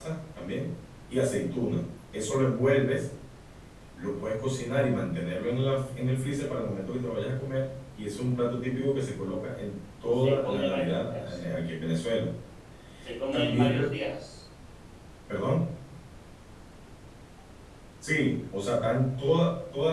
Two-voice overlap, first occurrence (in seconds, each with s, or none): 10.0 s